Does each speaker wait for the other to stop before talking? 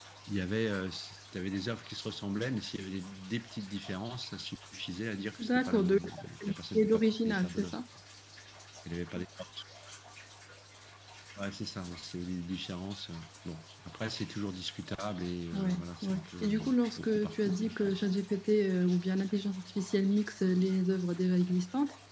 No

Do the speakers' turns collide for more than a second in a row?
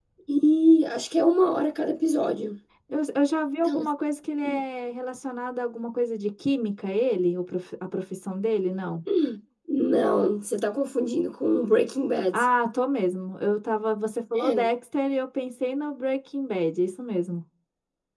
No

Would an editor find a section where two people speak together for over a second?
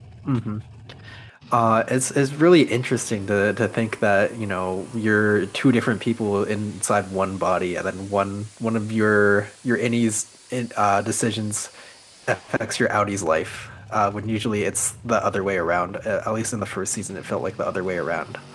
No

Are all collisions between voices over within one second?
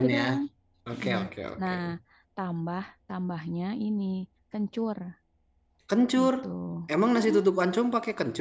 Yes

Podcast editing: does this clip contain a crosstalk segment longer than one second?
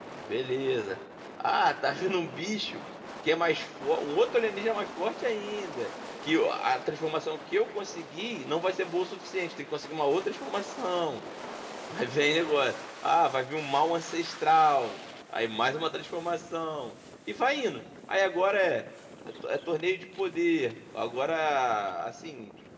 No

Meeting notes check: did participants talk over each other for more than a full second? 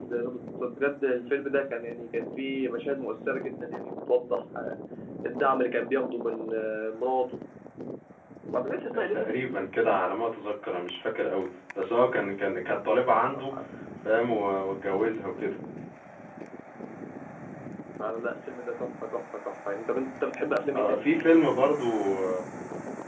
No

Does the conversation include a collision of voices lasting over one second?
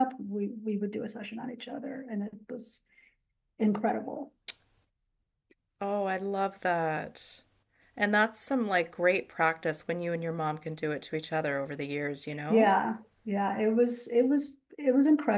No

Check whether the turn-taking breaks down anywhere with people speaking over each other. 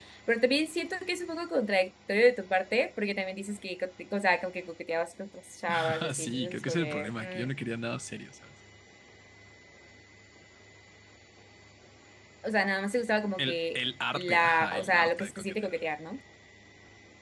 Yes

